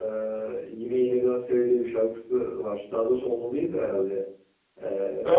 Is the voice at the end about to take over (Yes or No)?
Yes